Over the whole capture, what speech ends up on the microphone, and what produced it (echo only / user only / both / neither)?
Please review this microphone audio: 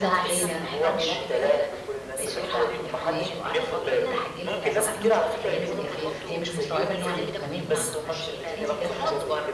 both